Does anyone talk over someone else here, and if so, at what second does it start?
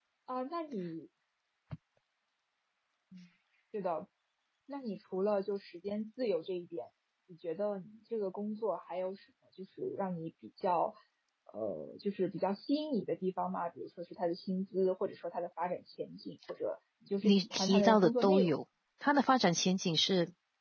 17.2 s

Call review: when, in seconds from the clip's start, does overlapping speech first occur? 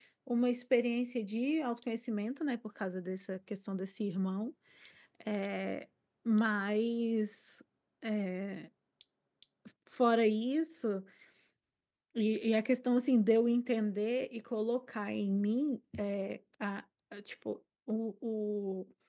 none

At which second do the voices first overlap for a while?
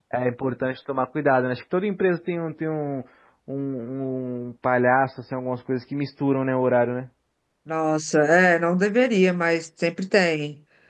none

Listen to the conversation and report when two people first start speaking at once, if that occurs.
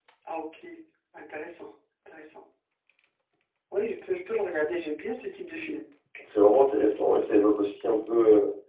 none

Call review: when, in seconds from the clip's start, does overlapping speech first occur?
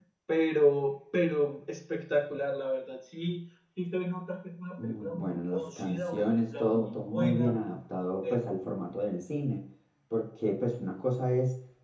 4.8 s

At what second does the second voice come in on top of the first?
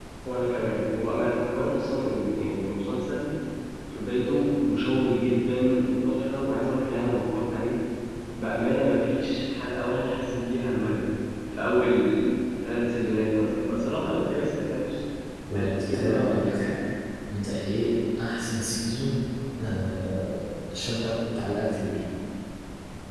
15.6 s

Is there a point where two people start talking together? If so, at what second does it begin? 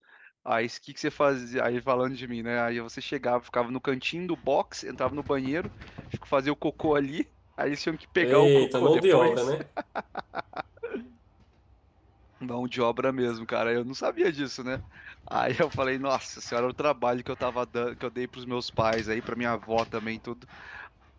8.2 s

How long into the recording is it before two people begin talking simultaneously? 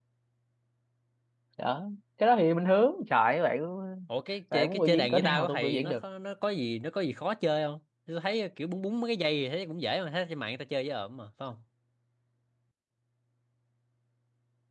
4.5 s

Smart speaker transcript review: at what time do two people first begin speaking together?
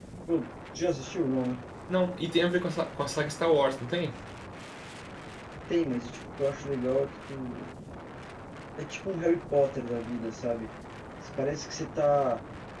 none

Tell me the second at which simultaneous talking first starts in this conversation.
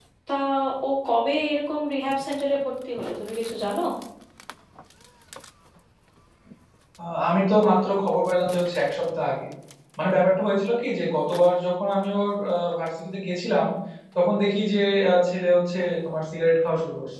none

